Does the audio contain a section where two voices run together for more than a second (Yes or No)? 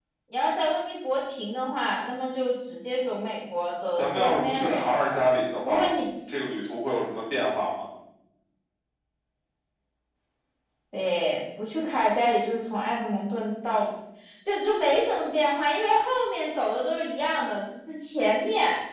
Yes